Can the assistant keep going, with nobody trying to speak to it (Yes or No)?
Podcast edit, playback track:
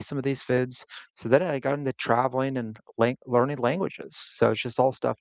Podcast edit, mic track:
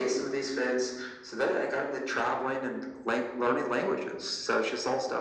Yes